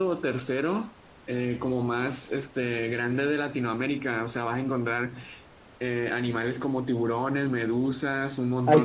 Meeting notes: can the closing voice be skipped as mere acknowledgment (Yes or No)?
Yes